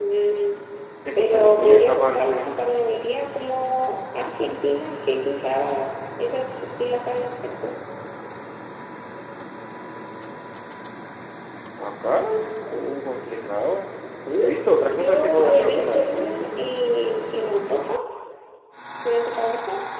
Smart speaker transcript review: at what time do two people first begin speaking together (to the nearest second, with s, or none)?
1 s